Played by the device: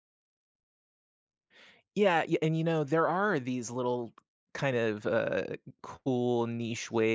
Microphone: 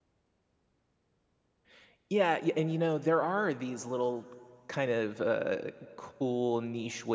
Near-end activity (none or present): none